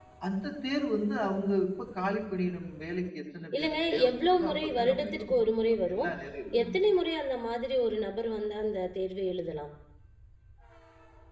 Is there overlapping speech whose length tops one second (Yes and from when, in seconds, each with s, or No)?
Yes, from 3.5 s